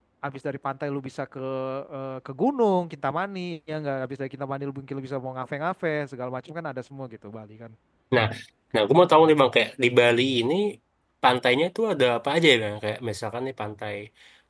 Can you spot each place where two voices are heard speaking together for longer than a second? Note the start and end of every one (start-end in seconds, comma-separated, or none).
none